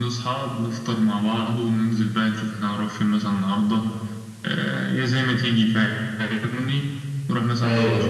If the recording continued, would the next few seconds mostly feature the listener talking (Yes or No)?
No